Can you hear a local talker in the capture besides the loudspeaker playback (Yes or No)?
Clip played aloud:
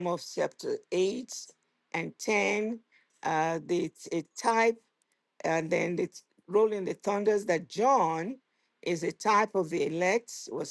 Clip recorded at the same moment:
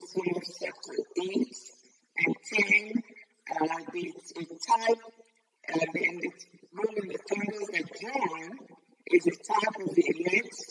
No